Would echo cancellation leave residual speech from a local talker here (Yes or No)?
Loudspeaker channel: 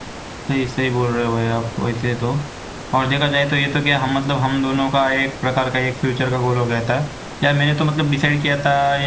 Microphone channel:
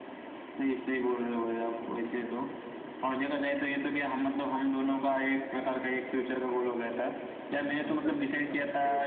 Yes